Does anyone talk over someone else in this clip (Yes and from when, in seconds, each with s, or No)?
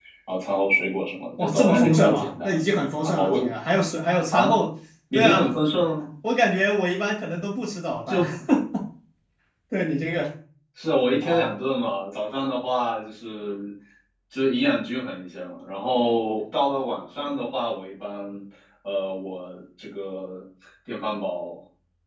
Yes, from 1.4 s